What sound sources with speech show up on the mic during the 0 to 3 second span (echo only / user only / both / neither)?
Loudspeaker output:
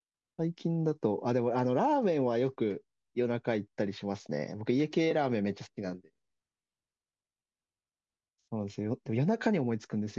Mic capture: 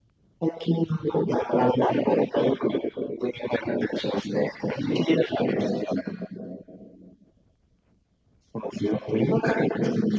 echo only